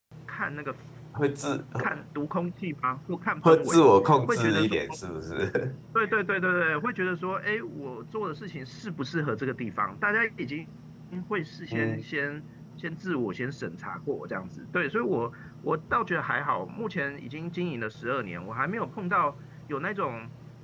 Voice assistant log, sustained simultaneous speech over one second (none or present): present